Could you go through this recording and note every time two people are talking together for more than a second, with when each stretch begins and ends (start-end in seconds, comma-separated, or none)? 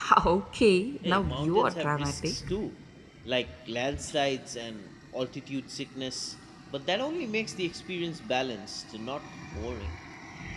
1.0-2.3